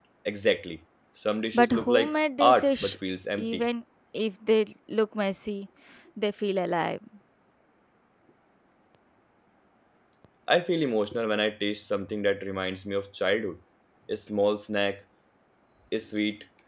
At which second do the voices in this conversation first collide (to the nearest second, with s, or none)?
2 s